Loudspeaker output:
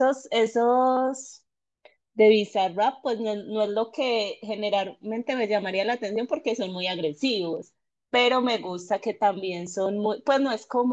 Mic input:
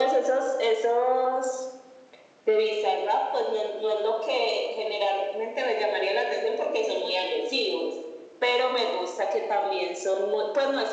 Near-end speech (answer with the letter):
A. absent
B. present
A